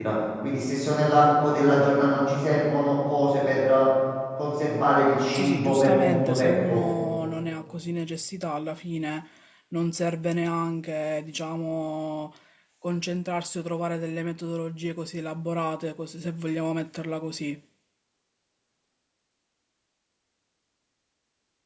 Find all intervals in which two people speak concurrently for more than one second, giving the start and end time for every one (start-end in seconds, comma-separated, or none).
5.3-6.8